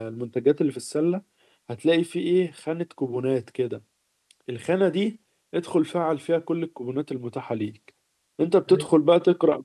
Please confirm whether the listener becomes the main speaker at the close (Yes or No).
No